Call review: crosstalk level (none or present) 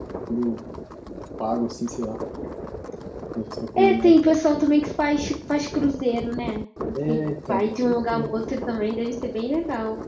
present